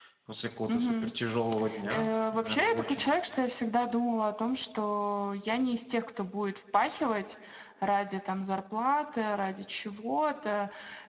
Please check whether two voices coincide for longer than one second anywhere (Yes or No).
Yes